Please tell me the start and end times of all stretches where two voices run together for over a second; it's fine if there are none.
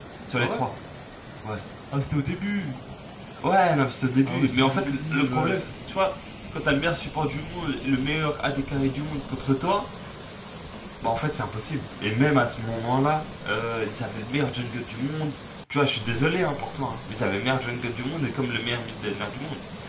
4.2-5.6

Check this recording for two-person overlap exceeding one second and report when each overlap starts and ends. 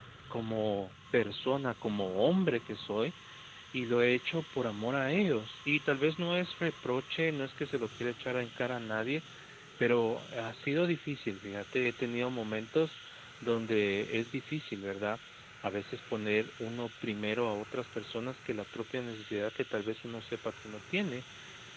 none

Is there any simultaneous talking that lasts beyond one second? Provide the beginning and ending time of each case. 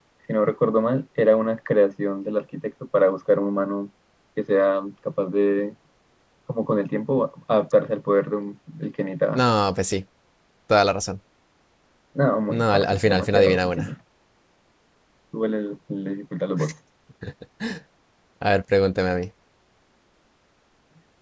12.5-13.9

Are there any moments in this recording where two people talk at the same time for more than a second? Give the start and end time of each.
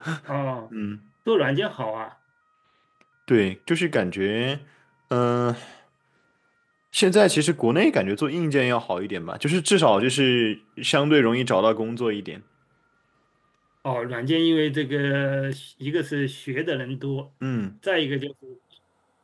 none

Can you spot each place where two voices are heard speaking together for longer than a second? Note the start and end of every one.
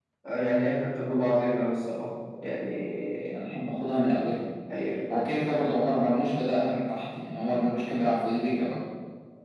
none

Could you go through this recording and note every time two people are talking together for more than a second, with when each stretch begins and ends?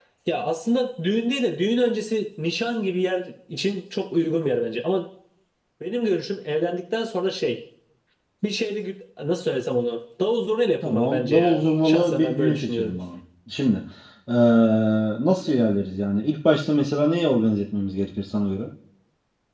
10.8-13.0

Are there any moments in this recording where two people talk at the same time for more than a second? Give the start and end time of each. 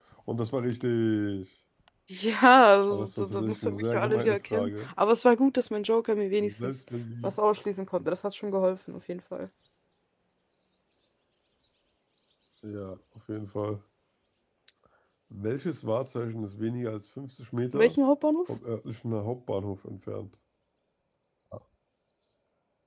2.9-4.9

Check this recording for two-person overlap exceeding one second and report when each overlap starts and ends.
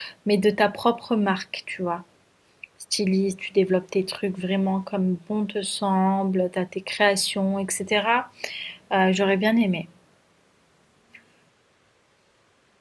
none

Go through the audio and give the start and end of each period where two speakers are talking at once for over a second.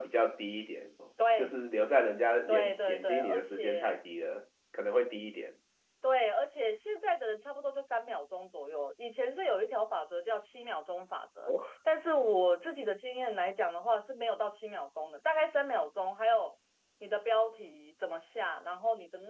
2.5-3.9

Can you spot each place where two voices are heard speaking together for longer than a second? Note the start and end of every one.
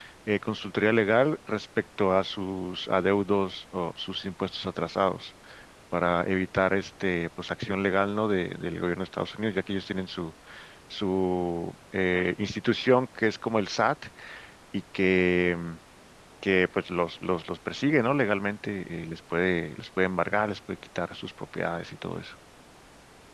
none

